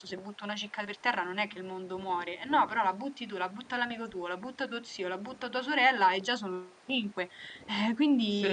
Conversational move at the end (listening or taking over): taking over